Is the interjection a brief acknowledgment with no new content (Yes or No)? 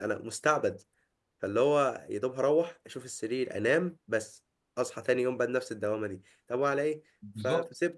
Yes